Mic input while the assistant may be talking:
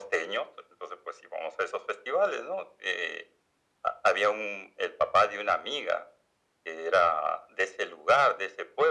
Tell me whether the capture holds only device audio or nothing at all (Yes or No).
Yes